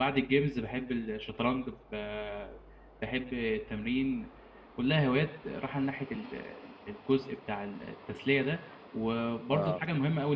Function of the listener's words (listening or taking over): listening